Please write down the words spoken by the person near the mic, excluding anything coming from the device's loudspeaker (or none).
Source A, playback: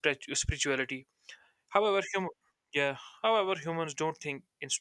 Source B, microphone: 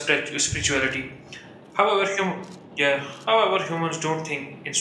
none